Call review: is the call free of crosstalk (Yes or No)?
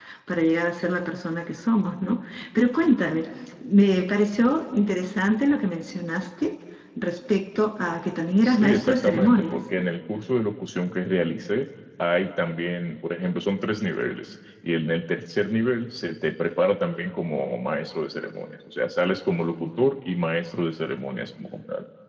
No